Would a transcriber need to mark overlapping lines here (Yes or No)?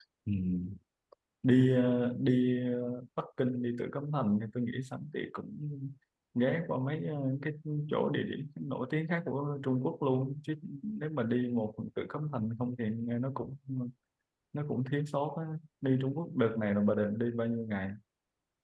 No